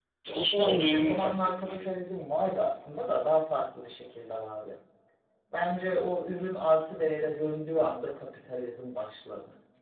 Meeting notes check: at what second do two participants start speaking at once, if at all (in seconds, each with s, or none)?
0.5 s